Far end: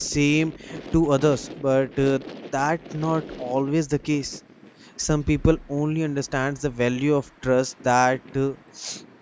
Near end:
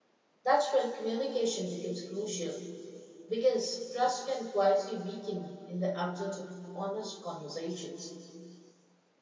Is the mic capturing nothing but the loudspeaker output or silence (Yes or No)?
No